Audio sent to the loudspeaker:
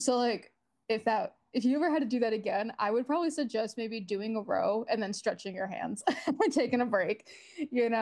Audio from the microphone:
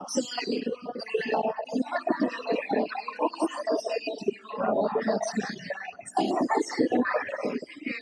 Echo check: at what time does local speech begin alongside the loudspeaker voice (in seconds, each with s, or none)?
none